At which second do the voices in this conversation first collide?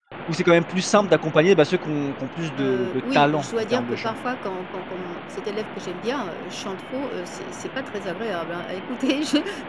2.6 s

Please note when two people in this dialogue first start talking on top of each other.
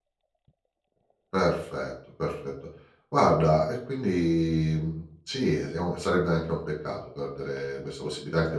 none

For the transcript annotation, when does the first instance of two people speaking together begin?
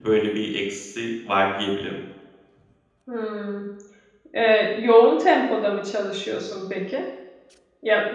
none

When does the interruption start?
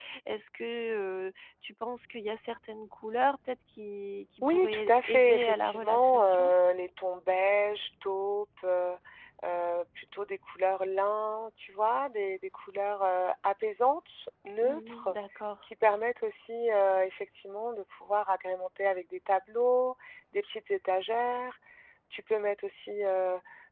4.4 s

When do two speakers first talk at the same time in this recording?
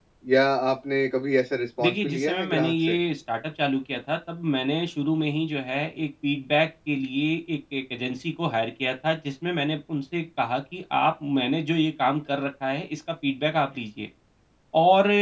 1.8 s

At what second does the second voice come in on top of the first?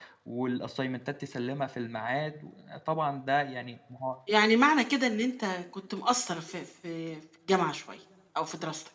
none

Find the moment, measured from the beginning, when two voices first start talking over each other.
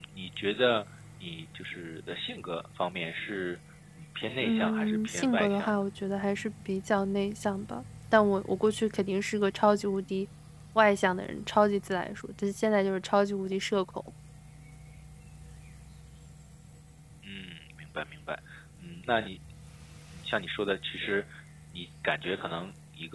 4.4 s

